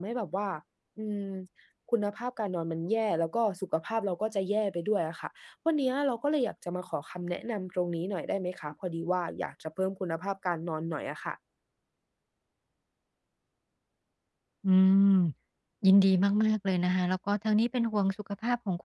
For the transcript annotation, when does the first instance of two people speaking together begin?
none

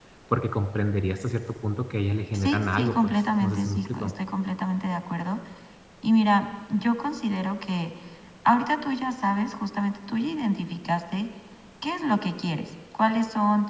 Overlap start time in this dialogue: 2.3 s

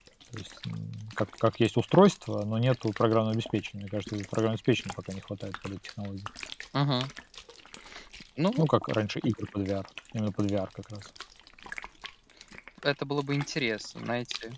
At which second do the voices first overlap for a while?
none

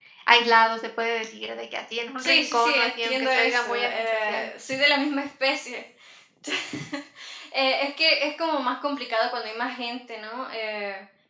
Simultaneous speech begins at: 2.2 s

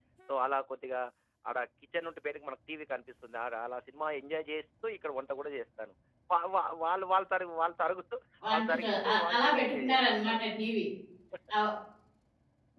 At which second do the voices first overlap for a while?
8.4 s

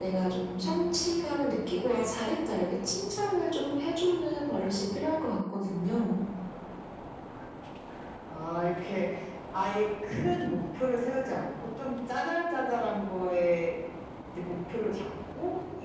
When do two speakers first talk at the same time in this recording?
none

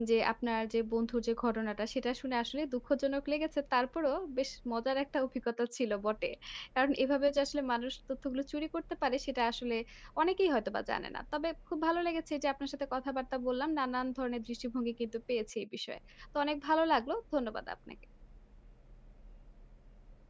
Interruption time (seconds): none

